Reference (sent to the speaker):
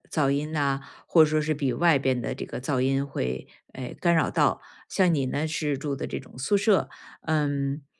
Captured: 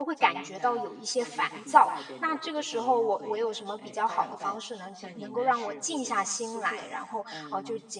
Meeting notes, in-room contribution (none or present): present